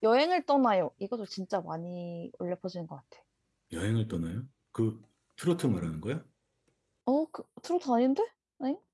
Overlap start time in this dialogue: none

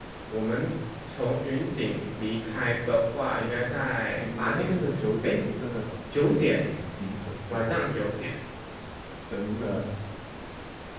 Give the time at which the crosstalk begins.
4.2 s

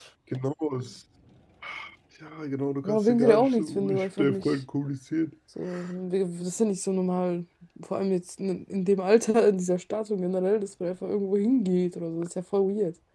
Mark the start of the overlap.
2.8 s

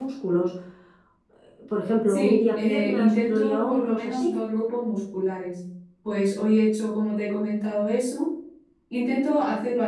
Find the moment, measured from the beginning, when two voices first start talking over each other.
2.1 s

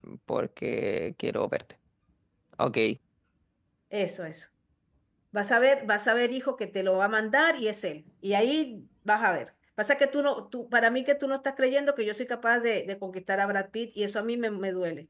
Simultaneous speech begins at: none

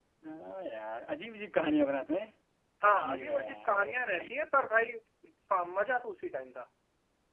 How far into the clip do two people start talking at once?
2.9 s

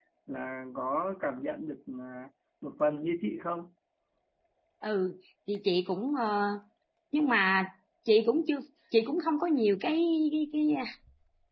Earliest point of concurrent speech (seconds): none

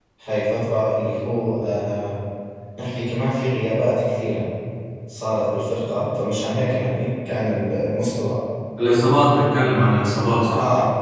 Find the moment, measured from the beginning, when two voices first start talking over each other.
none

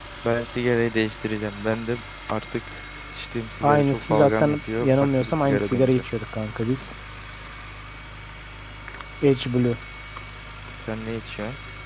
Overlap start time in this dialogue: 3.6 s

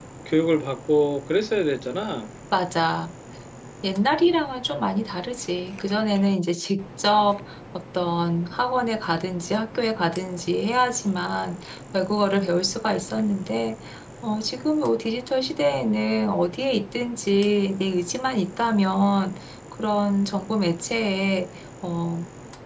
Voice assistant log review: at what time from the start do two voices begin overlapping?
none

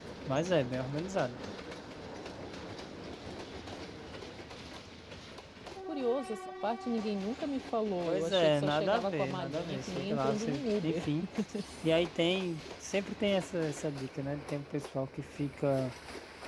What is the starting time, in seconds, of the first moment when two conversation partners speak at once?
8.0 s

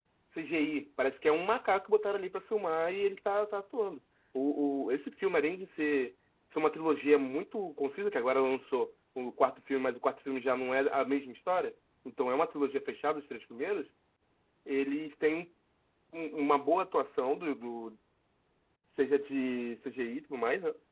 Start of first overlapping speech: none

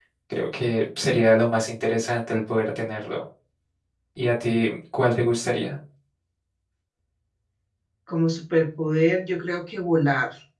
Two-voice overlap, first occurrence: none

